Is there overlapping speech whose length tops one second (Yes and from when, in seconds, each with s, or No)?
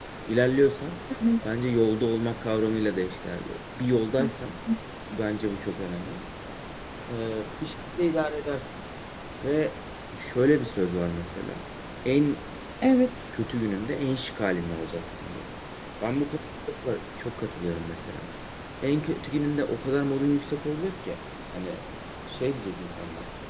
No